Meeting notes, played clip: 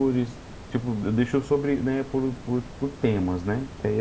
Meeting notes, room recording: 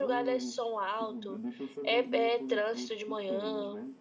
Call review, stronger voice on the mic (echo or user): user